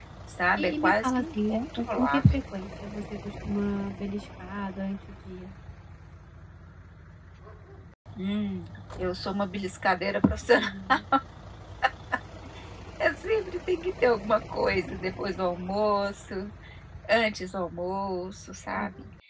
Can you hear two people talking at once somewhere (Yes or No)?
Yes